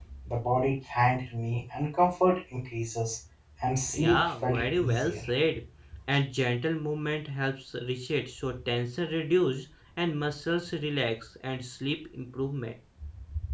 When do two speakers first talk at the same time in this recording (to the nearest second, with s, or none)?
4 s